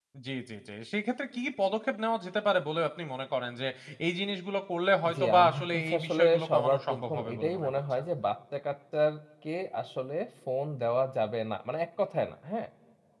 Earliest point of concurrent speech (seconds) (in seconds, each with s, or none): 5.0 s